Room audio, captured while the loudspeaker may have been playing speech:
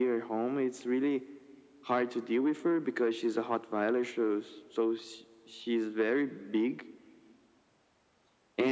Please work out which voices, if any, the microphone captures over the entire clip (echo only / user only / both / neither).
echo only